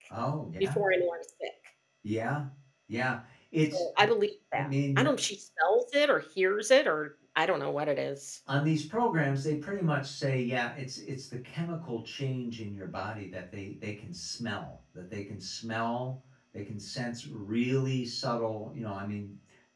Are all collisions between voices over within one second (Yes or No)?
Yes